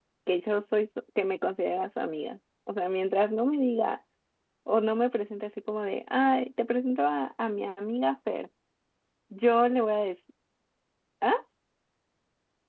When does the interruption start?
none

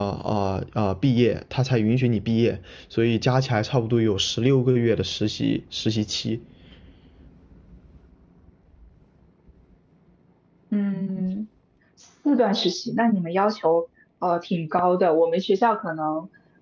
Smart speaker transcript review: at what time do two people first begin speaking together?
none

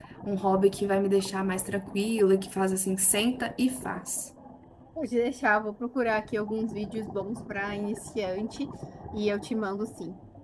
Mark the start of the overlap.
none

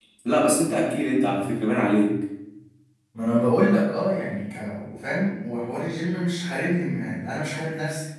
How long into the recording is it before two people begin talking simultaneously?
none

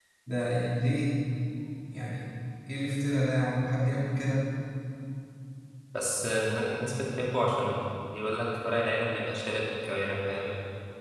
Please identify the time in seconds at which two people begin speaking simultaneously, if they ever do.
none

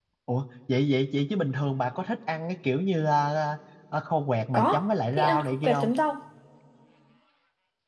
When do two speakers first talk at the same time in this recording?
4.5 s

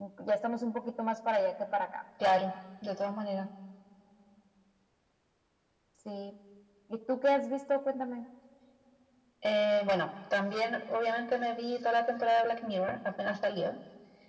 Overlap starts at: none

